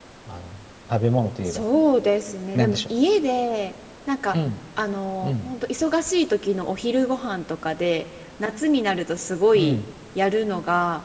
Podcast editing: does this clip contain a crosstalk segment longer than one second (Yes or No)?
No